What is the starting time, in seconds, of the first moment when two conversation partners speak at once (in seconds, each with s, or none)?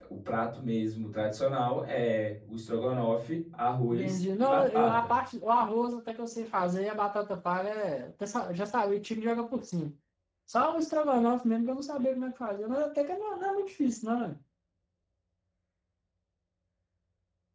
3.9 s